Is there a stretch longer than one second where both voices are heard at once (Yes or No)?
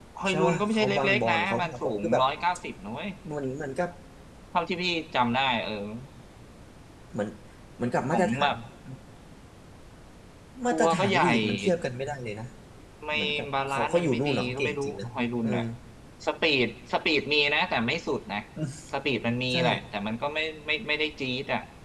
Yes